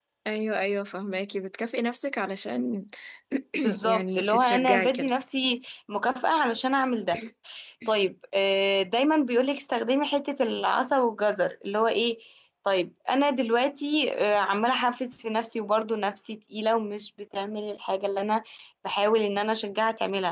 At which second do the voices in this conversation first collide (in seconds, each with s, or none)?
3.9 s